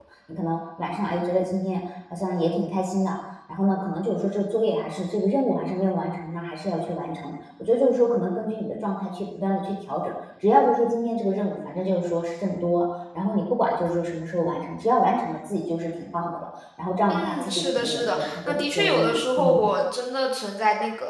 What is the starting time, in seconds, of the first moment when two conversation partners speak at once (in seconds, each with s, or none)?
17.1 s